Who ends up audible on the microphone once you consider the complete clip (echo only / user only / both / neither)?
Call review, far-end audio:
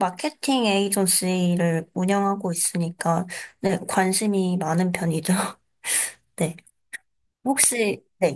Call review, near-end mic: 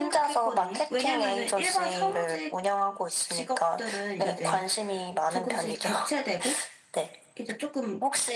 both